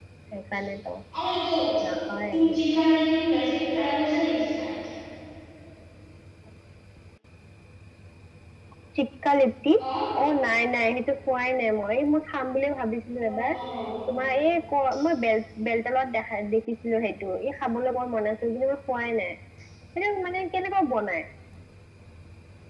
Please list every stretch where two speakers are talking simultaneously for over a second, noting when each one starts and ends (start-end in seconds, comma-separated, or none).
none